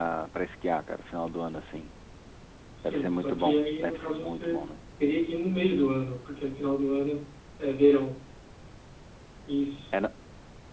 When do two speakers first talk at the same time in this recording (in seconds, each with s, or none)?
2.8 s